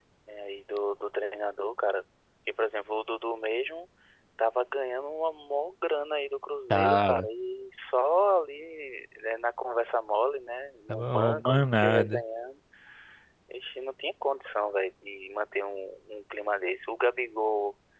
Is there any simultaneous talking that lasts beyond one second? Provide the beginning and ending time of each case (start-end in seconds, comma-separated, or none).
10.9-12.2